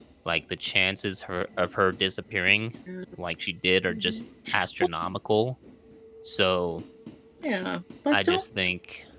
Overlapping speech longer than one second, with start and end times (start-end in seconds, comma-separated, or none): none